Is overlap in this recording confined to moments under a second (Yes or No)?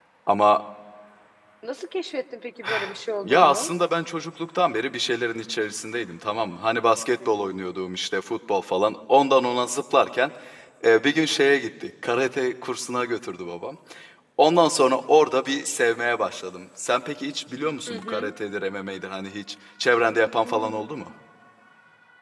Yes